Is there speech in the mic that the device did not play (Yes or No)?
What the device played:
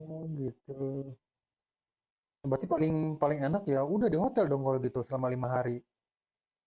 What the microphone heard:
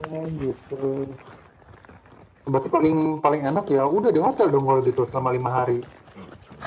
No